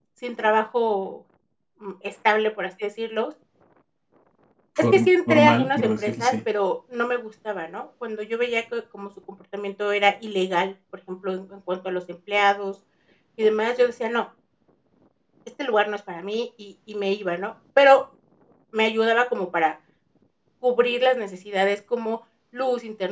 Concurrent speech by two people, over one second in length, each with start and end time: 4.8-6.4

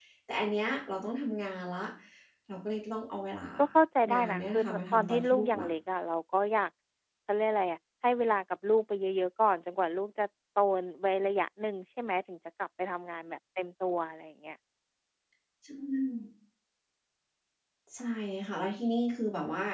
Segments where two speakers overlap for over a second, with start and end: 4.1-5.7

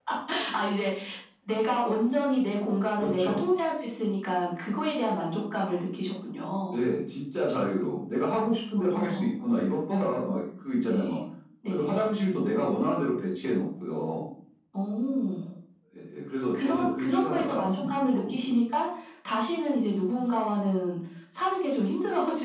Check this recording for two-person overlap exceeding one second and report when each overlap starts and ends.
16.5-18.5

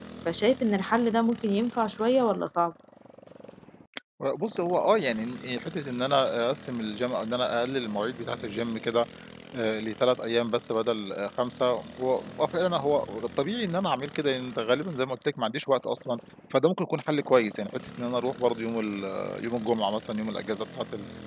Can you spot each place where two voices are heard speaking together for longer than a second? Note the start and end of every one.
none

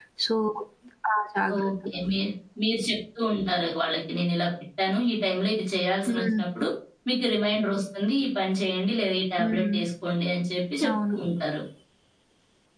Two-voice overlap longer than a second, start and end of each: none

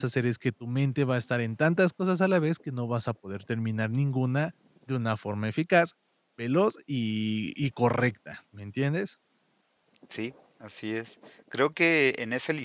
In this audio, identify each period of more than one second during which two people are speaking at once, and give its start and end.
none

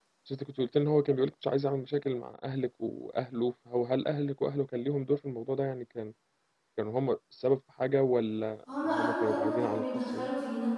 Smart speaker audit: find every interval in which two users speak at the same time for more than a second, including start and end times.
8.8-10.3

